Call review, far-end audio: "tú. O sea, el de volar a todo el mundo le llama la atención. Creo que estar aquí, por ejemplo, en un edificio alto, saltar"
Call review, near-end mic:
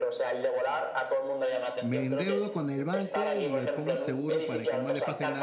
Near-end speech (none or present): present